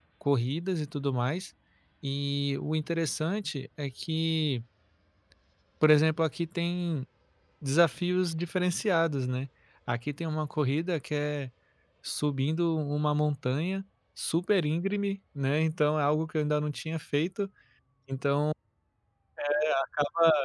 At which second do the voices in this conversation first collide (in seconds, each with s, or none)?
none